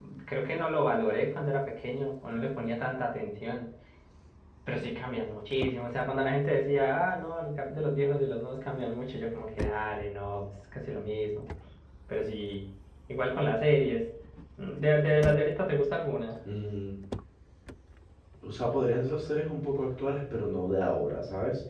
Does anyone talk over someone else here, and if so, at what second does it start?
none

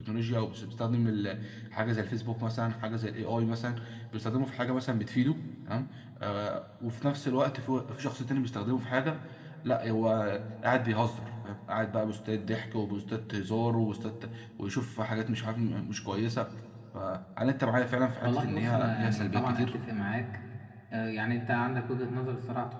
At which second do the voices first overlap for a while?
18.2 s

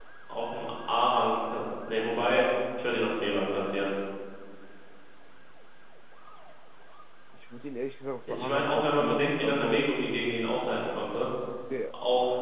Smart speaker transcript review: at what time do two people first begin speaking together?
8.2 s

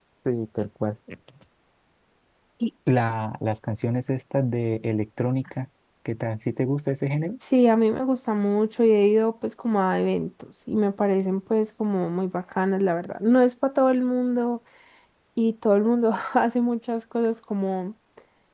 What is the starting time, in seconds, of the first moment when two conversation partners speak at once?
none

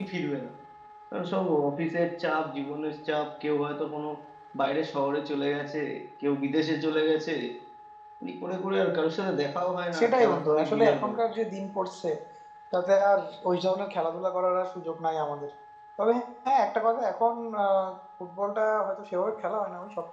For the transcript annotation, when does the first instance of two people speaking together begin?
9.9 s

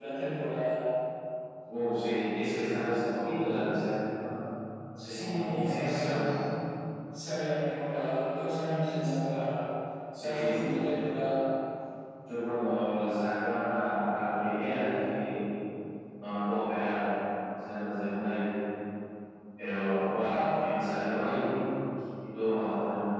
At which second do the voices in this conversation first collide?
5.0 s

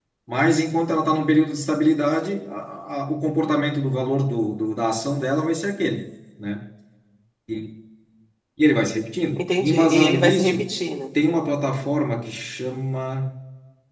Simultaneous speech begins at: 9.4 s

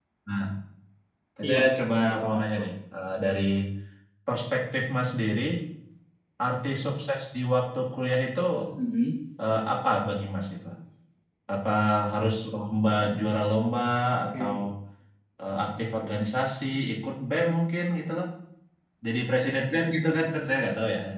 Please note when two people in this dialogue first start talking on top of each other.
1.5 s

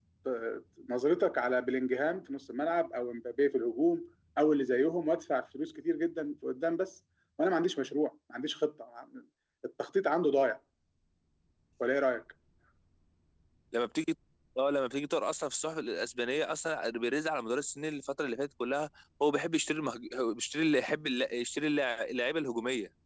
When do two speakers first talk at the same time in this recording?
none

